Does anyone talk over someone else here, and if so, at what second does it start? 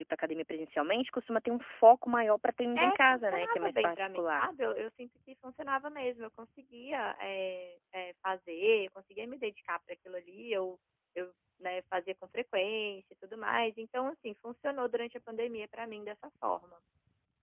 2.8 s

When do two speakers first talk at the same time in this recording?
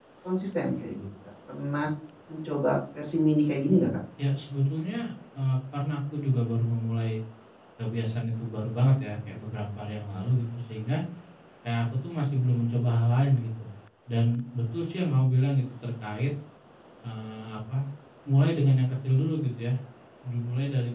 none

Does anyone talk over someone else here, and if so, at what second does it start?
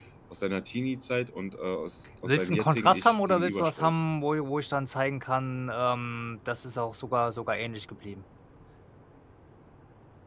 2.2 s

